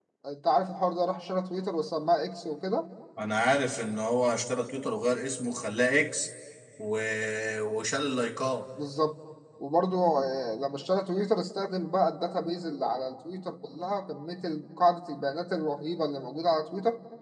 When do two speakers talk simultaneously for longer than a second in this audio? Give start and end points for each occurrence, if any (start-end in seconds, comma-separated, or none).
none